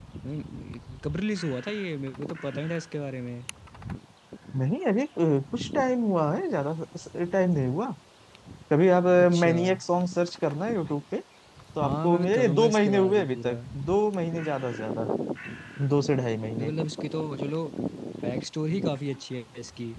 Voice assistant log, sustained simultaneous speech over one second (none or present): present